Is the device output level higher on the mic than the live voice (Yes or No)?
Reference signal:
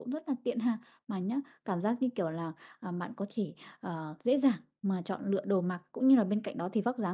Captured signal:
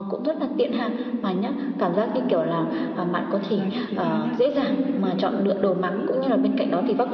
Yes